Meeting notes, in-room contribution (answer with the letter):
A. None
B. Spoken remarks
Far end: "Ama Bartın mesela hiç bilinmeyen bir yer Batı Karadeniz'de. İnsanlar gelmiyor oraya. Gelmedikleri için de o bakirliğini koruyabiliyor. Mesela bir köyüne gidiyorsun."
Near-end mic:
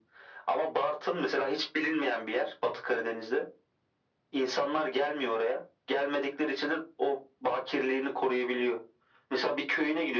A